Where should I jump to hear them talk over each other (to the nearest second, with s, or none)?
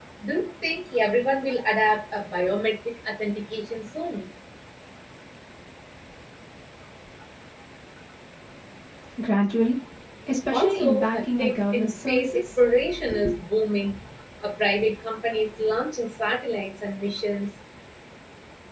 11 s